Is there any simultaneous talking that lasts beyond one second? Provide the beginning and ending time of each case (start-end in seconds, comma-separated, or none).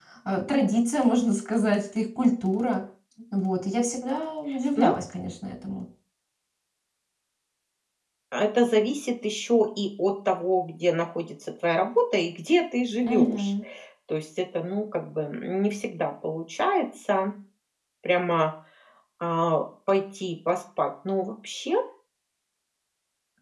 none